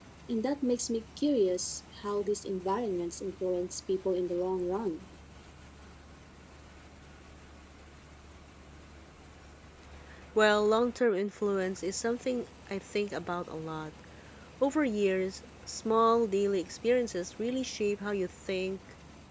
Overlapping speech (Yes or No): No